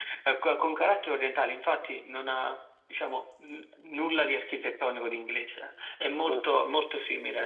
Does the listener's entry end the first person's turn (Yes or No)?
No